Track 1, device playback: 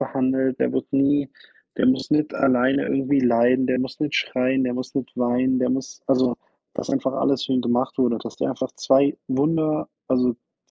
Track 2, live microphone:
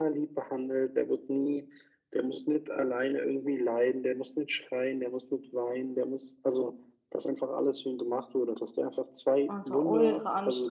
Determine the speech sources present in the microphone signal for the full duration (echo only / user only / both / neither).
both